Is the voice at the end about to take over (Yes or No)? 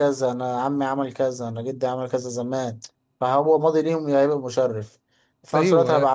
No